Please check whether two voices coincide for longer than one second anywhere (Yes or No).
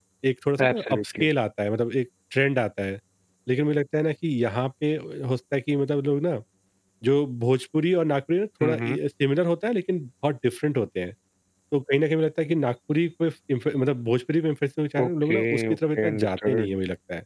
Yes